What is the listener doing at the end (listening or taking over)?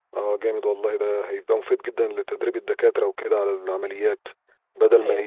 listening